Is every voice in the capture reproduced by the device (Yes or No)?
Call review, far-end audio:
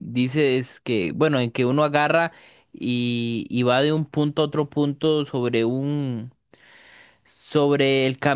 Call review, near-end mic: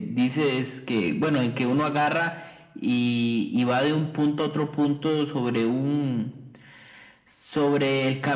Yes